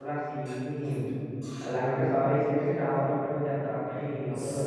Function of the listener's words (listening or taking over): taking over